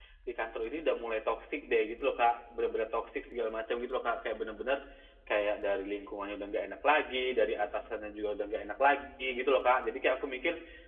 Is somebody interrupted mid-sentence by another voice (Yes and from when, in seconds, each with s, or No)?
No